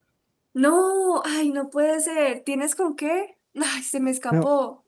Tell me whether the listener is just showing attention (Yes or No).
No